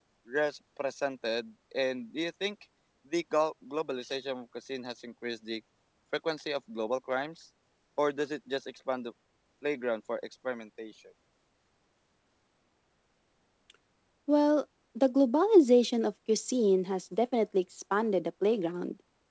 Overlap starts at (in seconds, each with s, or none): none